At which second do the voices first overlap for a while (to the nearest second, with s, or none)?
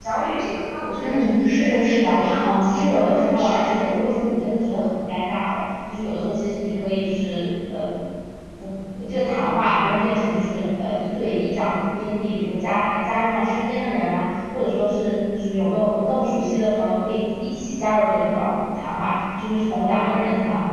1 s